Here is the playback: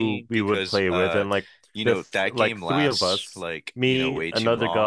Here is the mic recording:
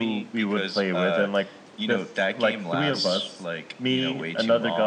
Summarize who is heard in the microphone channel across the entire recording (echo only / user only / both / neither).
echo only